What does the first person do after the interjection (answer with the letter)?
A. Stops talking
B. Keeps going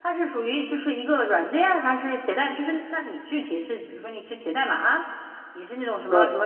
B